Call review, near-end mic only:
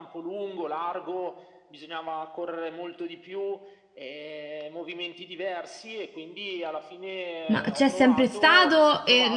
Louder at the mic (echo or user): user